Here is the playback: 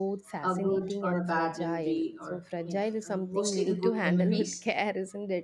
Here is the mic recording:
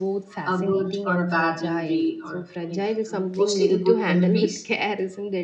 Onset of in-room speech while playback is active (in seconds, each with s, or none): none